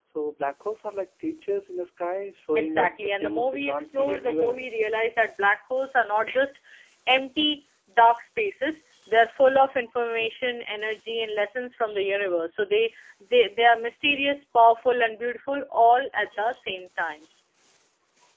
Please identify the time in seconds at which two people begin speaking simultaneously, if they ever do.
2.5 s

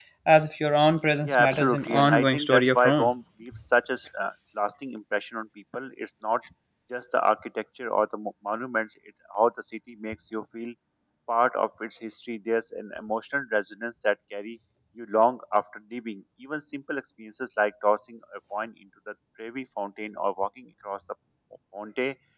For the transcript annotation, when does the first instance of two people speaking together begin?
1.3 s

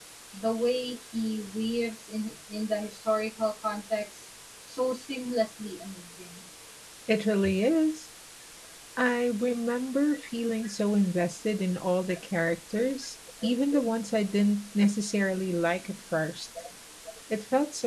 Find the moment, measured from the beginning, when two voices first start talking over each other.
none

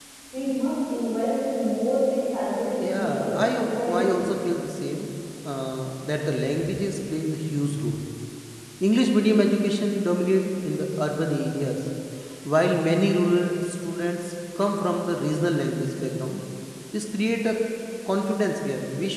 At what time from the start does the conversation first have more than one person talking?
2.8 s

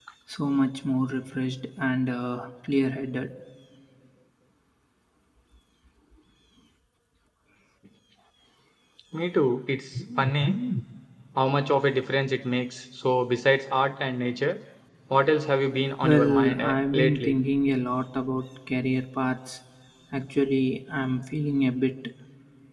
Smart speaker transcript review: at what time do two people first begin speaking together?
15.8 s

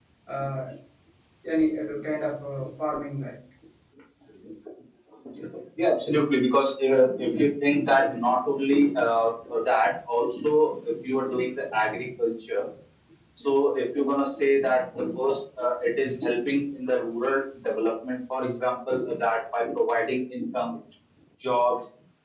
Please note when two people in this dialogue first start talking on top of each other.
none

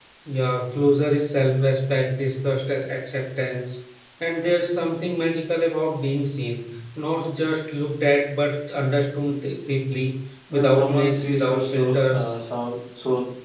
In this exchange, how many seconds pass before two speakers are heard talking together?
10.5 s

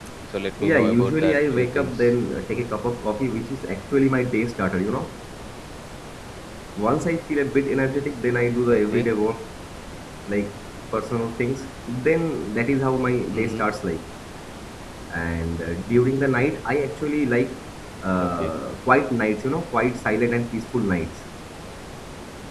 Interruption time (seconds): 0.6 s

